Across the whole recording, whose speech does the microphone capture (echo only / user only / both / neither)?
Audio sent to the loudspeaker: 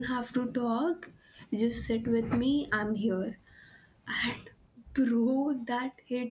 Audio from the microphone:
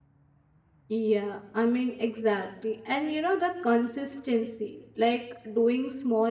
user only